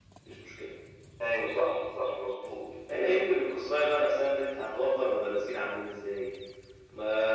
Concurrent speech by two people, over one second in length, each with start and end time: none

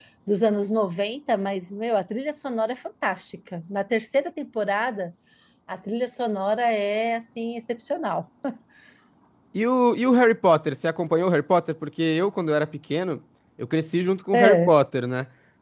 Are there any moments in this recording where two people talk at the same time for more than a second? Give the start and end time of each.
none

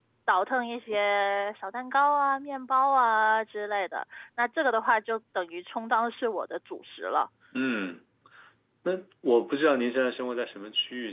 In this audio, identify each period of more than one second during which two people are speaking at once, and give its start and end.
none

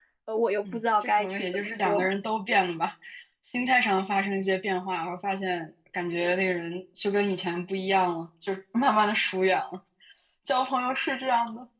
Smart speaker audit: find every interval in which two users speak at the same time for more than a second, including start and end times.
0.7-2.1

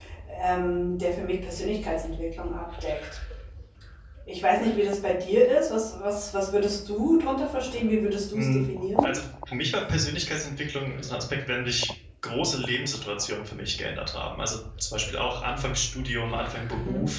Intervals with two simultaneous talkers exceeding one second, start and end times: none

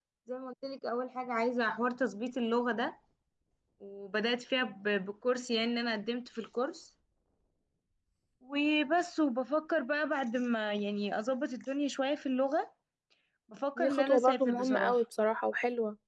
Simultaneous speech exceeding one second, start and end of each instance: 13.8-15.0

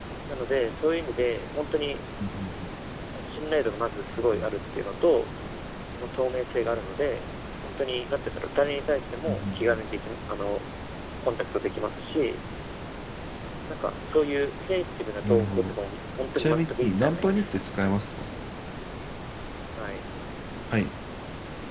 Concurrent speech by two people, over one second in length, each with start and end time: 16.4-17.6

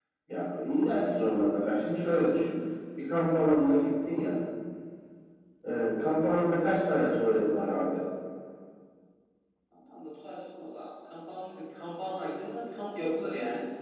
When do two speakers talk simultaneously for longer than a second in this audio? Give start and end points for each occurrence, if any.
none

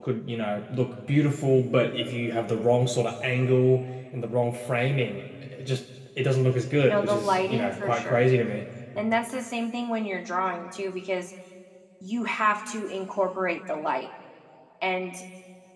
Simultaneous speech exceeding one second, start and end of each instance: 6.8-8.3

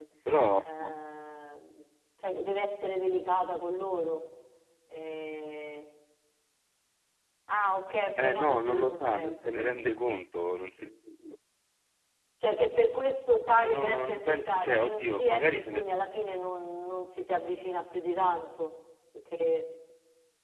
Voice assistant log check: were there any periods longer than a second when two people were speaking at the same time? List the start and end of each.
8.2-9.8, 13.5-15.8

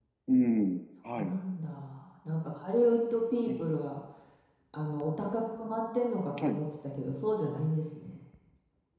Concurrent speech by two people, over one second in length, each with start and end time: none

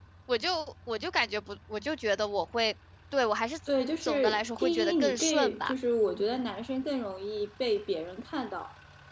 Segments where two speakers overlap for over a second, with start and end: 4.0-5.7

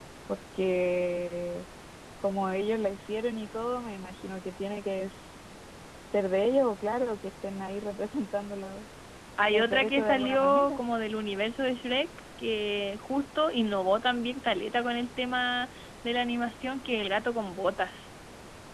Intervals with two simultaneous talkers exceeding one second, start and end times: 9.5-10.8

